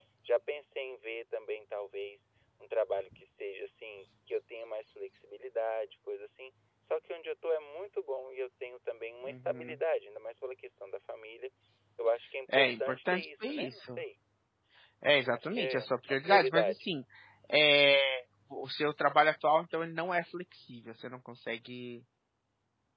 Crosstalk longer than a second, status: present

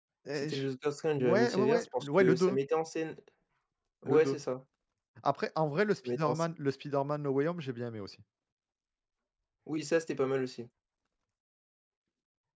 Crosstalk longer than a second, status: present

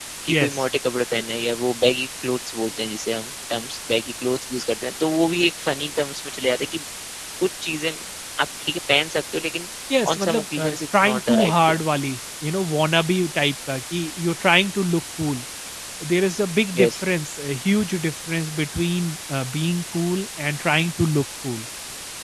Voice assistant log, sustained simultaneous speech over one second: present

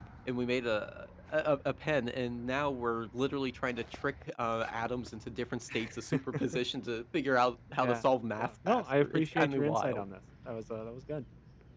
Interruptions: present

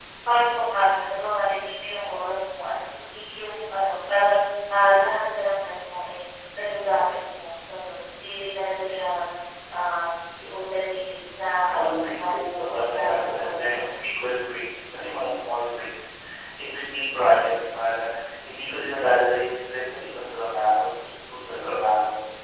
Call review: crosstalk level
present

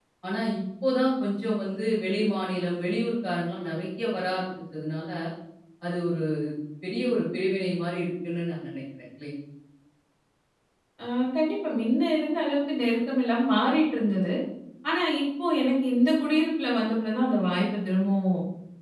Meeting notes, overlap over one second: none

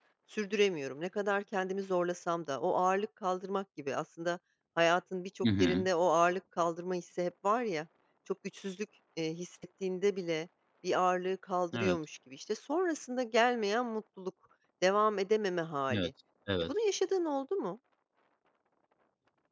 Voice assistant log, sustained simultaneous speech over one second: none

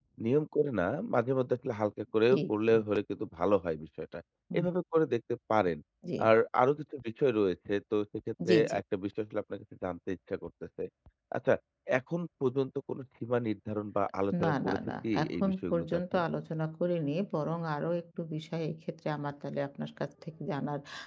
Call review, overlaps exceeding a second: present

